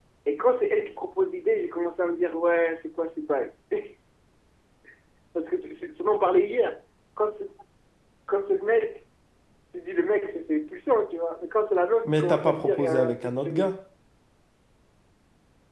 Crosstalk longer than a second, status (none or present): present